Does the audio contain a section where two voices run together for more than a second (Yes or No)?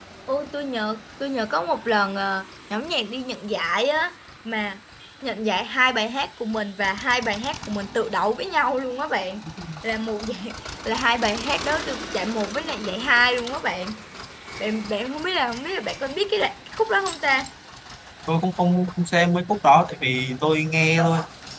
No